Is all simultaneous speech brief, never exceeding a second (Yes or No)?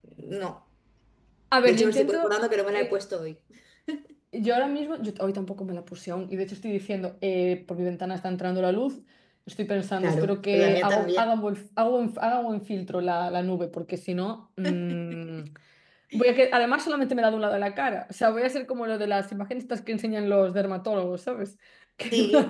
No